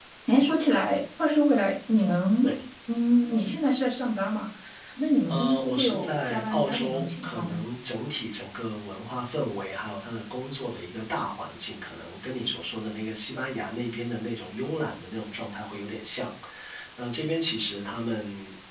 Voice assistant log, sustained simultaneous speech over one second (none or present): present